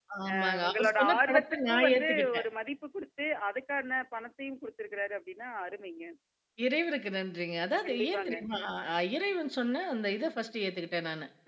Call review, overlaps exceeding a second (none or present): present